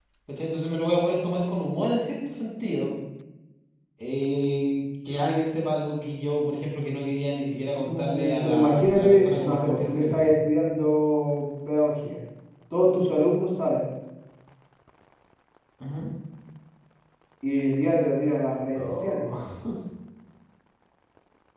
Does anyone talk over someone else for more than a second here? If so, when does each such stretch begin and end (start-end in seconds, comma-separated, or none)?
7.7-10.3